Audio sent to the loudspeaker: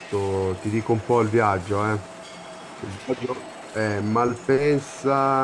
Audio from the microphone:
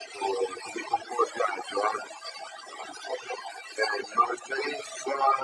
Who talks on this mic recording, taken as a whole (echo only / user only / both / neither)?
echo only